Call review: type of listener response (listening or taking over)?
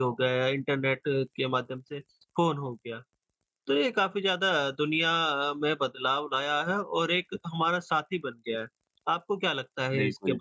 taking over